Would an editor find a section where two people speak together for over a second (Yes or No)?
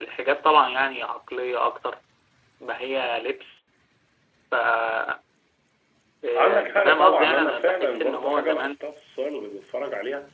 Yes